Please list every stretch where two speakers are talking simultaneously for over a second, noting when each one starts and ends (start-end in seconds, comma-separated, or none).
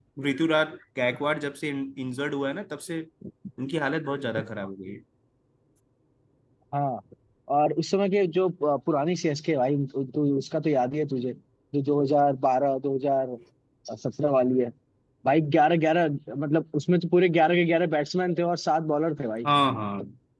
none